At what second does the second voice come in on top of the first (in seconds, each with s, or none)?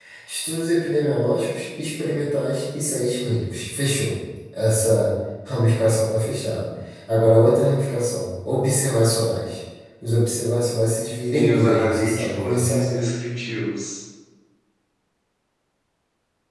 11.3 s